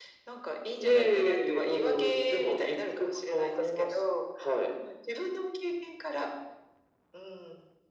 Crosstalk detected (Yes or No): Yes